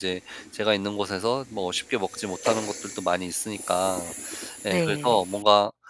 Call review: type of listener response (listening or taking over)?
listening